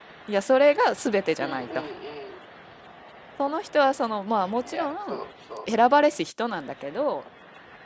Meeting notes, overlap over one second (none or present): none